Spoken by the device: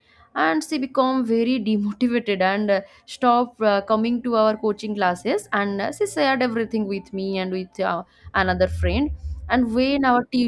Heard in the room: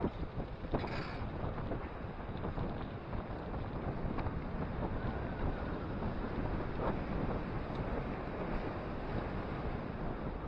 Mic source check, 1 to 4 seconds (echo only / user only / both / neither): neither